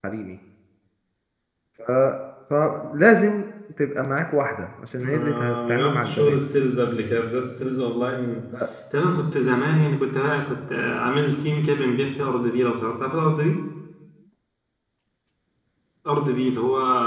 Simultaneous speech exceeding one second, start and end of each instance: 5.0-6.4

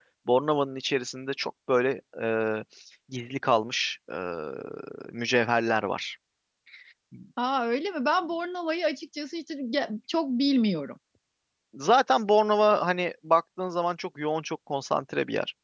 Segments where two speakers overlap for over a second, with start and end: none

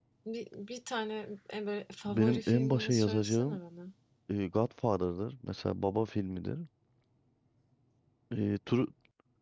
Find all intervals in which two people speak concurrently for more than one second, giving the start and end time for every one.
2.1-3.6

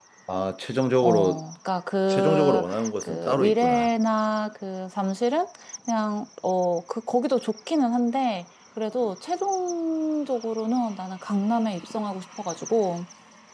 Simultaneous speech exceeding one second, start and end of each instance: 2.1-3.9

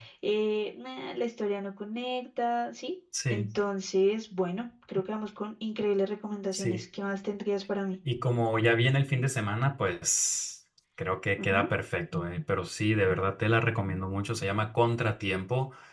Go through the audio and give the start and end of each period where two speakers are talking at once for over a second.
none

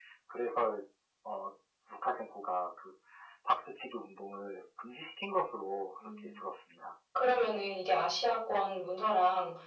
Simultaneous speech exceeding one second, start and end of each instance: none

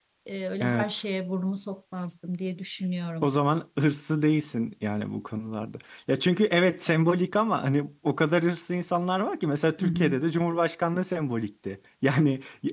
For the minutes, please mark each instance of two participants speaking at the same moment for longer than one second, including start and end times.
none

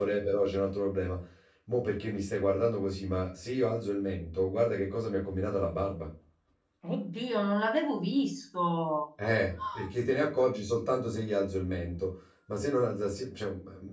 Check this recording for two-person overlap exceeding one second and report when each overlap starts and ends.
none

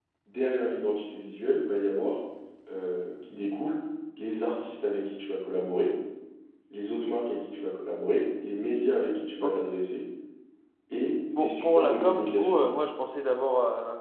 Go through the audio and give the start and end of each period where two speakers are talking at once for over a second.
11.4-12.8

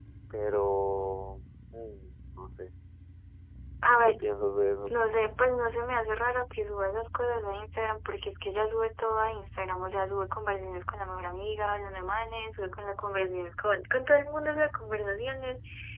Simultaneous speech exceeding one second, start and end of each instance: none

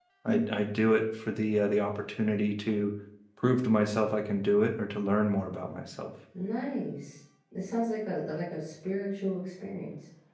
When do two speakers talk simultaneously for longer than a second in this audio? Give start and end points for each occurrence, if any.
none

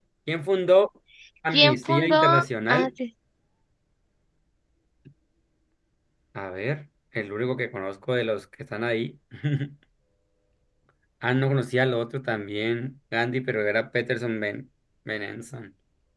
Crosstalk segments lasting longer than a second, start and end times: 1.5-2.9

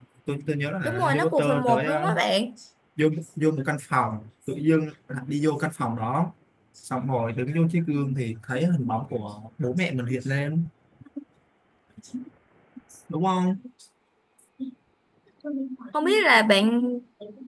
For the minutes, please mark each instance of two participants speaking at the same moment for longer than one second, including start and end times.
0.8-2.2

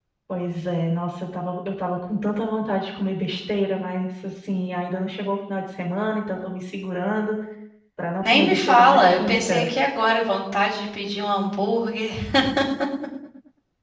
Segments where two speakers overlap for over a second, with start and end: 8.2-9.7

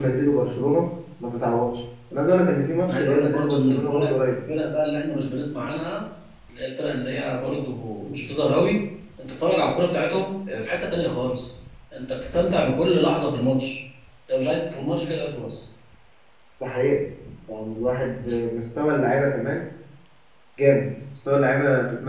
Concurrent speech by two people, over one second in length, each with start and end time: 2.9-4.3

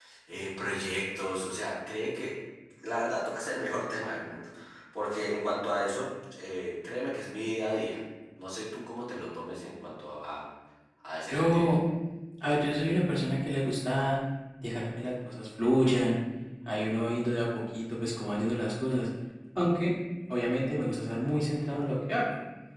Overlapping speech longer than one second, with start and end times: none

